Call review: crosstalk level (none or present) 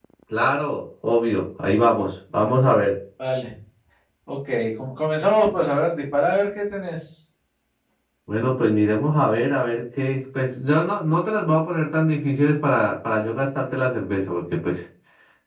none